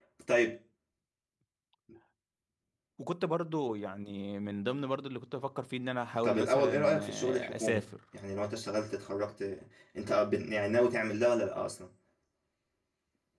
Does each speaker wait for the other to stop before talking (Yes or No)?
No